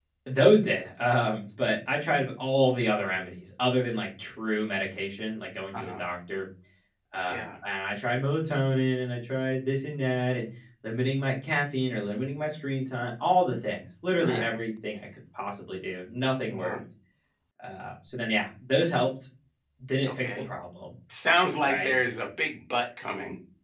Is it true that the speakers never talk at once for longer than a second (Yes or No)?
Yes